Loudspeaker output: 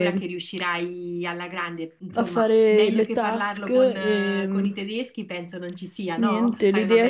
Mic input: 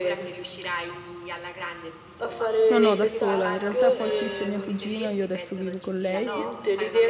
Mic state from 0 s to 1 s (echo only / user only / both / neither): echo only